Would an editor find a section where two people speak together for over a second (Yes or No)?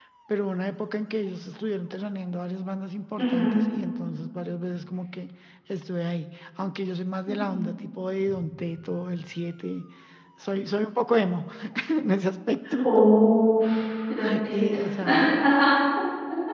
No